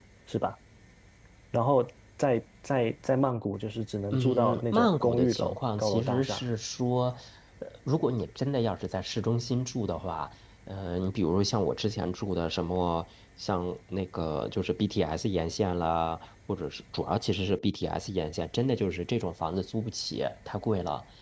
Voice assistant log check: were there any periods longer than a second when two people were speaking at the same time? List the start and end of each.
4.1-6.5

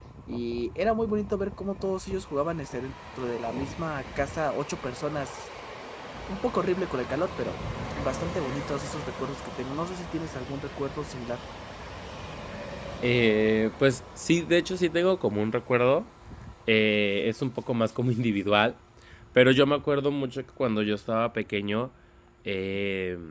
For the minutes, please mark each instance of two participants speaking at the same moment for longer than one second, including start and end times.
none

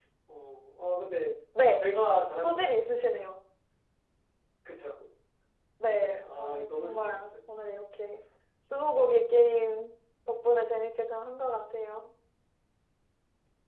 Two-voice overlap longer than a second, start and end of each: 6.0-7.3

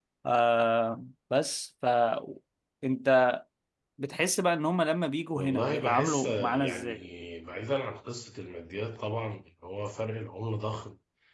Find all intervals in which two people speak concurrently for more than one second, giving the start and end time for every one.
5.3-7.0

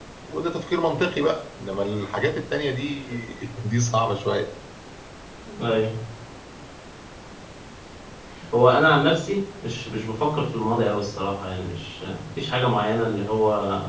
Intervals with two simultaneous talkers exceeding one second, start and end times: none

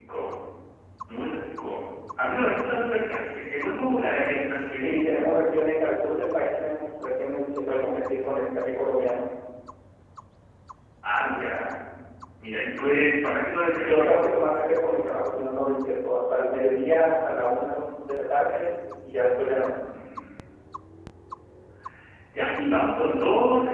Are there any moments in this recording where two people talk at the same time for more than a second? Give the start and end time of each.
none

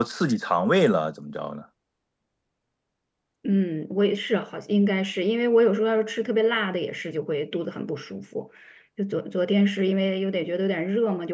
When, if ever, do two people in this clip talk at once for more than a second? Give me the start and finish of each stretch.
none

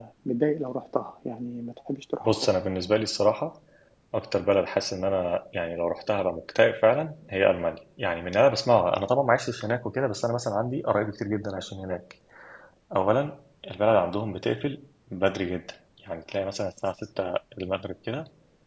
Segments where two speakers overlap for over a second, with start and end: none

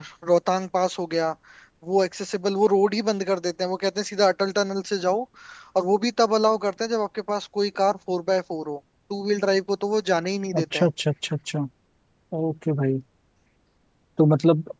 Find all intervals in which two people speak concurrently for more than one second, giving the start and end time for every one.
none

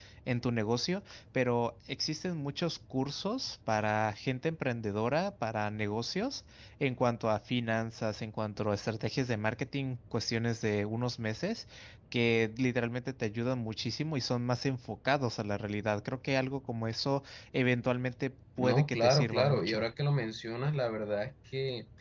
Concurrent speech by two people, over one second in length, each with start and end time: 18.6-19.8

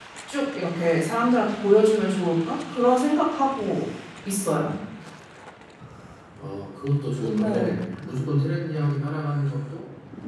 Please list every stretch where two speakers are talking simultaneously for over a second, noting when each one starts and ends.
none

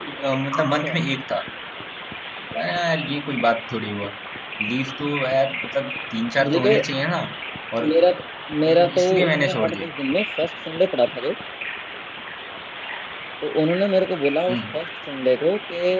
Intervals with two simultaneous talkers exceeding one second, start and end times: 8.7-9.9

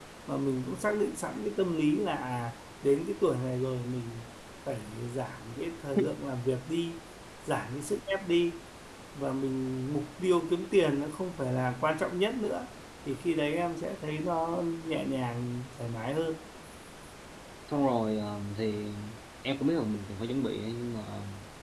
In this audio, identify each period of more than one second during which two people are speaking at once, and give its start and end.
none

